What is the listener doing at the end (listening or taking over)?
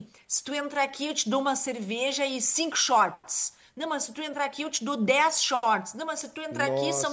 listening